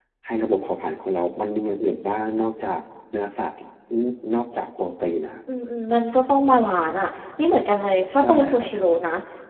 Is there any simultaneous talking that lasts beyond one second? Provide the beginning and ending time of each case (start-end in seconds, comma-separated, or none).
none